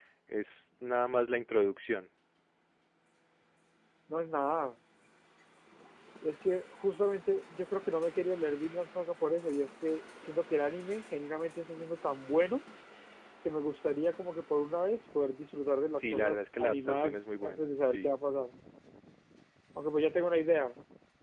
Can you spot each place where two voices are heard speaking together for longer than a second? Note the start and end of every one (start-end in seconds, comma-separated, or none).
16.0-18.2